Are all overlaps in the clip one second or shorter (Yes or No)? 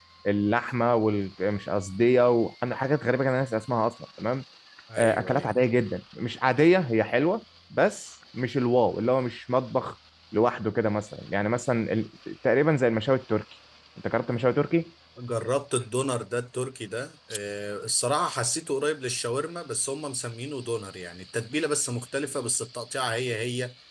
Yes